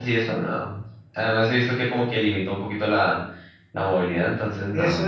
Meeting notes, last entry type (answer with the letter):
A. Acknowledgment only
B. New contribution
B